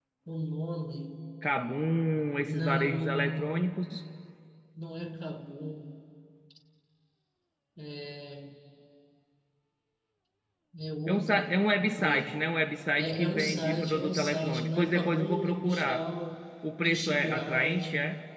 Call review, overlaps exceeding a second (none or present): present